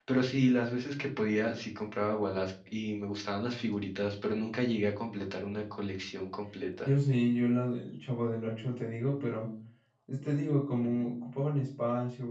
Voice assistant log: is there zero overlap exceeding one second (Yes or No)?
Yes